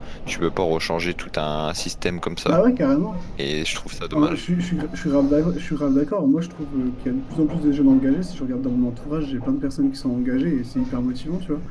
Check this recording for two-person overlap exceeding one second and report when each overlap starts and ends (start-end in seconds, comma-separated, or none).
none